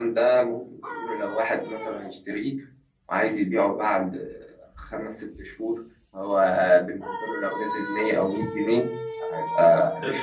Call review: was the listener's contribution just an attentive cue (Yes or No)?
Yes